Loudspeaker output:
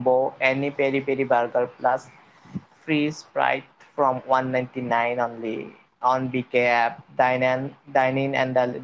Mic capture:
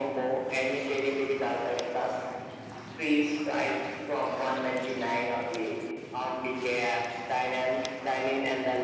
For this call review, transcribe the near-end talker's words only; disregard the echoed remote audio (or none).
none